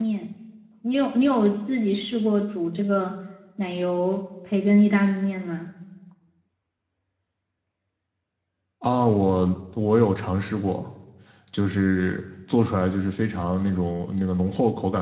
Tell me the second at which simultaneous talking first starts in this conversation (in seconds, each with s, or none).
none